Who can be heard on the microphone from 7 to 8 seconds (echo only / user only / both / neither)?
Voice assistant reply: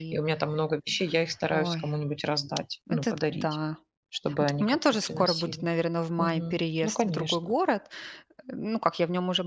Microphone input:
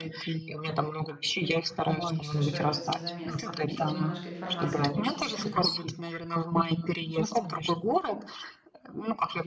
echo only